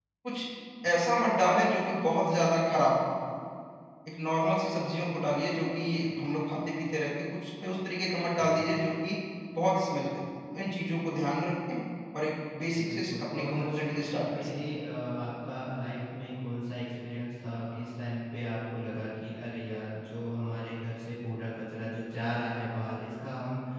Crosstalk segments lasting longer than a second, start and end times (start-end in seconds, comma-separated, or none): 12.7-14.6